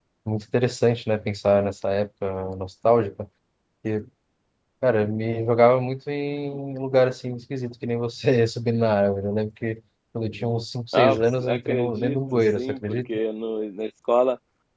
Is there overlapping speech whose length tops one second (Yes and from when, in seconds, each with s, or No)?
Yes, from 10.9 s